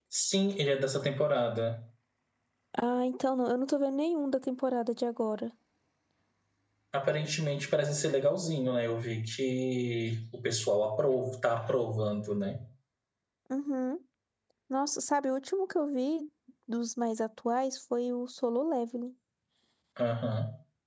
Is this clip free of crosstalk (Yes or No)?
Yes